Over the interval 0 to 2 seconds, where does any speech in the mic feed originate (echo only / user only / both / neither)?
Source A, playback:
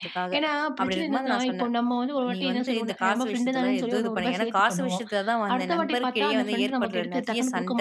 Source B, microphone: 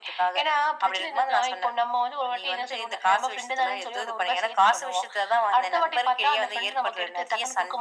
echo only